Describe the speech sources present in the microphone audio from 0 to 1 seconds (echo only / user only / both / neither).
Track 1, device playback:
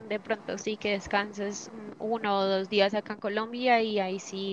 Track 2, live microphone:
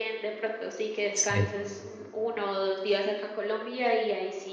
echo only